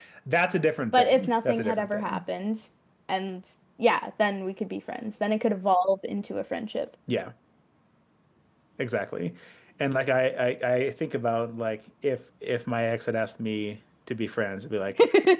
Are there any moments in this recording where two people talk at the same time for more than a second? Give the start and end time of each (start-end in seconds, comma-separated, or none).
0.9-2.2